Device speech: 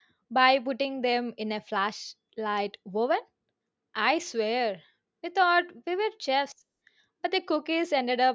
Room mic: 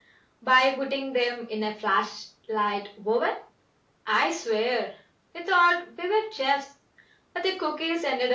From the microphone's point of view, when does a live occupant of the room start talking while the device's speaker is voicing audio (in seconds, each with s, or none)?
none